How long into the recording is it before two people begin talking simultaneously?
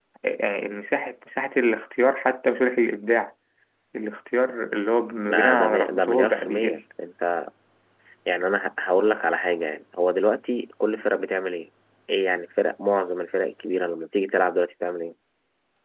5.3 s

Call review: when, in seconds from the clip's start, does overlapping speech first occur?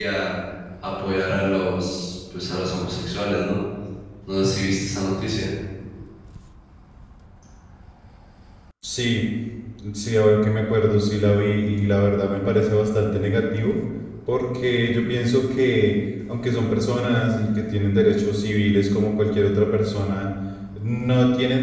none

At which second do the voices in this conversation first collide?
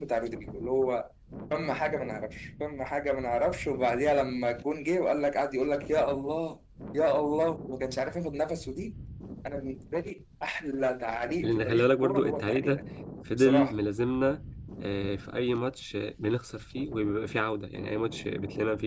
11.4 s

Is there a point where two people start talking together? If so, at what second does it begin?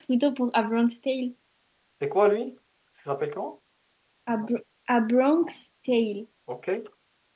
none

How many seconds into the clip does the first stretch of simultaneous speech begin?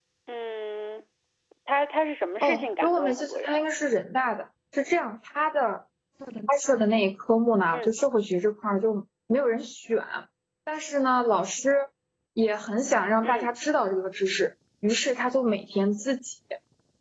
2.4 s

